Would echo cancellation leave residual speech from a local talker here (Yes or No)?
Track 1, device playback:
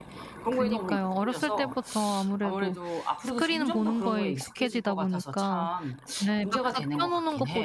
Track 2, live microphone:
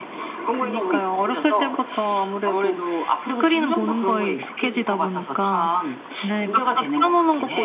No